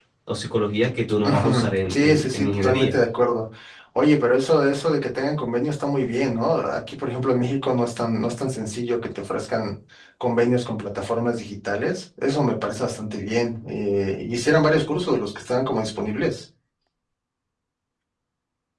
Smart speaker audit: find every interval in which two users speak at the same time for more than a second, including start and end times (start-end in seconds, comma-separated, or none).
1.2-2.9